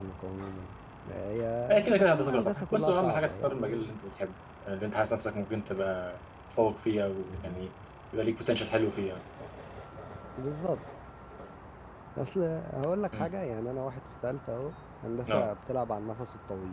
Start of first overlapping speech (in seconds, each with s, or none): 1.9 s